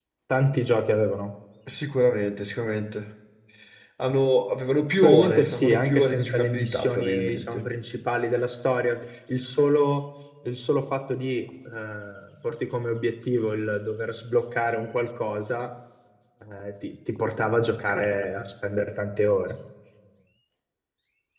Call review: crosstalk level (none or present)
present